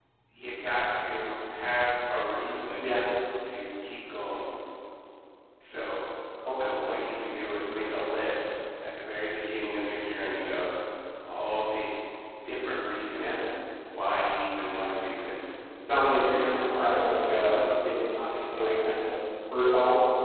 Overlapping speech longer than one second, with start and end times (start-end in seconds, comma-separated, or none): 15.8-17.6